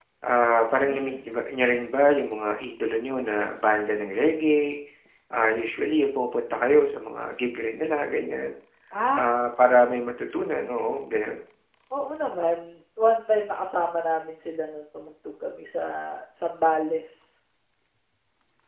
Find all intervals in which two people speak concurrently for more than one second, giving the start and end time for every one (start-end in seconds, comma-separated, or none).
none